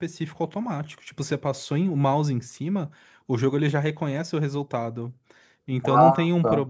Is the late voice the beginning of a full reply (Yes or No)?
No